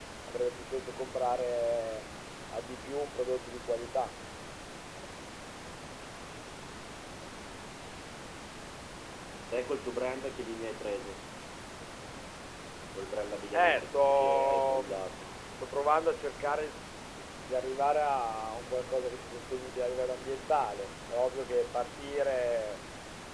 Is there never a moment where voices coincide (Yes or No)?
No